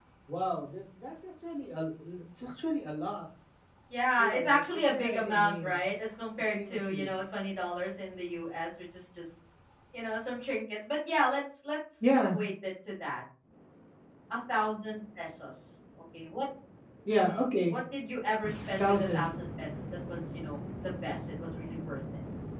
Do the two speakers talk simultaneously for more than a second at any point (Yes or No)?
Yes